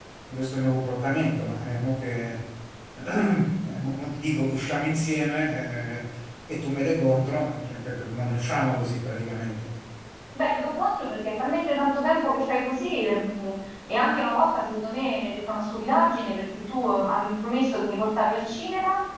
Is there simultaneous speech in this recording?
No

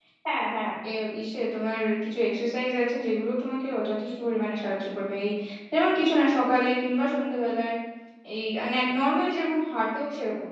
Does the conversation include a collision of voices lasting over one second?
No

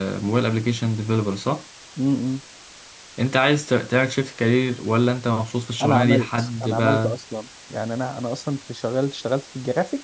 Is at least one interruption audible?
Yes, from 5.8 s

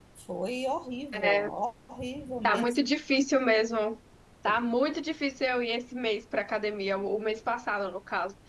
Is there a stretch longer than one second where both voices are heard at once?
No

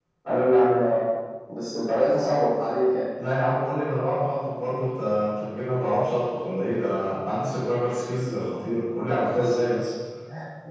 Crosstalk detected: No

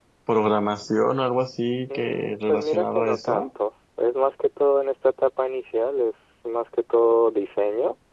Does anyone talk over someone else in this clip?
Yes, from 1.9 s

